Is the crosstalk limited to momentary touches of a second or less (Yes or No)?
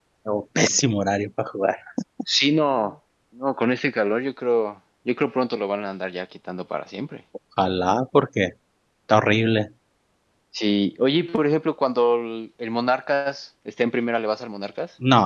Yes